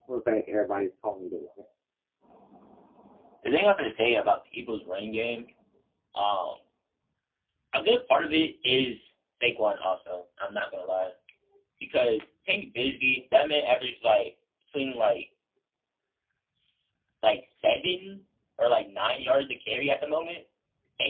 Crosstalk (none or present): none